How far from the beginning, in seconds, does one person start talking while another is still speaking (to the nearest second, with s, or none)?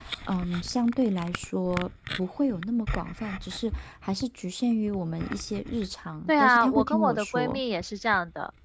6 s